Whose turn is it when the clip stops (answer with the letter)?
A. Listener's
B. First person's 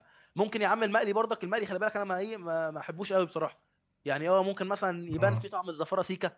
B